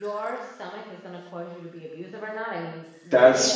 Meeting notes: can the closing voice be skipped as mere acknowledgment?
No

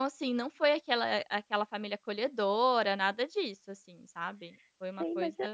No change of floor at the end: No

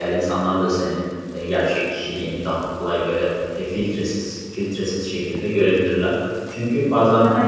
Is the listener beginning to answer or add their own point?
No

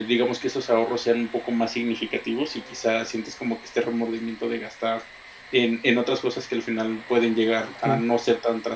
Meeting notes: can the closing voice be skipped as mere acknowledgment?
Yes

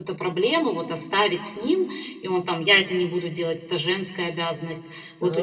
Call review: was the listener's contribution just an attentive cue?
Yes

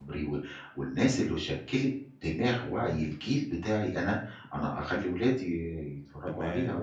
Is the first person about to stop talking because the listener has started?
Yes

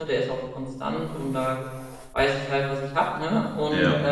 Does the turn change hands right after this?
No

